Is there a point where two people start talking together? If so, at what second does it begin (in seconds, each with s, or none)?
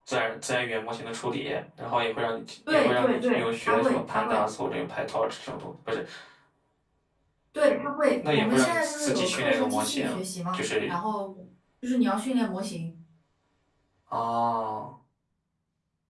2.7 s